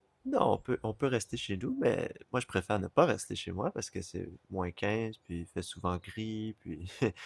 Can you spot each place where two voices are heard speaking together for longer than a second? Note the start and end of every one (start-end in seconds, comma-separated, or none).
none